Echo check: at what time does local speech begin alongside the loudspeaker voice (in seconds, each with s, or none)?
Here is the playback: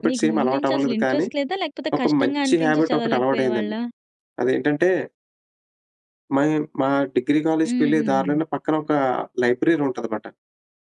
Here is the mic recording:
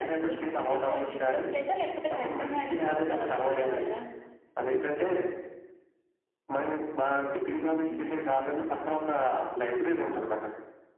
none